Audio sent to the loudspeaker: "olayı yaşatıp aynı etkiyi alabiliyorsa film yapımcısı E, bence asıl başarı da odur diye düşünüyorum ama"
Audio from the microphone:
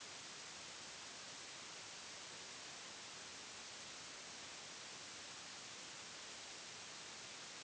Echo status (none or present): none